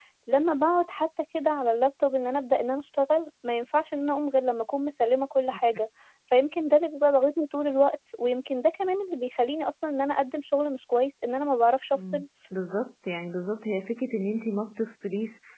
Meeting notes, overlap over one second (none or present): none